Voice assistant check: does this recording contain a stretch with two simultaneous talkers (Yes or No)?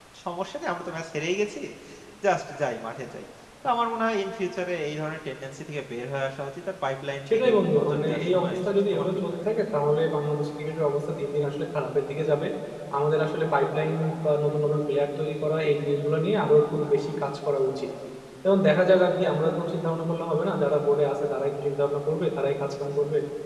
Yes